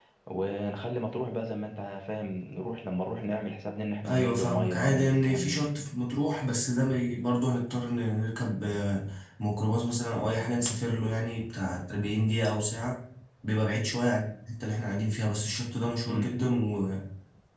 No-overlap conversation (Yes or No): No